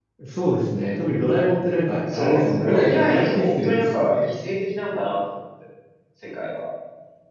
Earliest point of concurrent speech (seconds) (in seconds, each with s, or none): 2.1 s